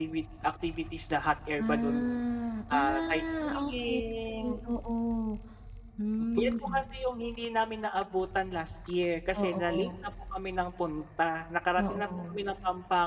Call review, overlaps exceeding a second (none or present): present